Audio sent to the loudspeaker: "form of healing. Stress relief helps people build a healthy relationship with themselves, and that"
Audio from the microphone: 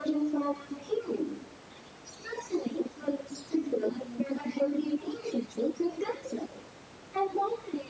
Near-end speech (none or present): none